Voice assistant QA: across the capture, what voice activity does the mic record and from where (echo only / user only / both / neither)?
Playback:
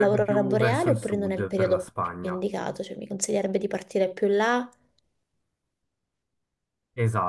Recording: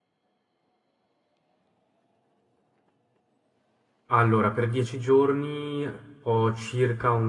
user only